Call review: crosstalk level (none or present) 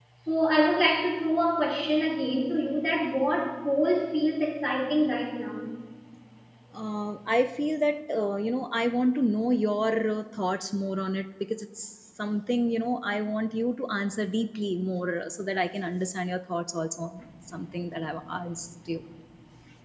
none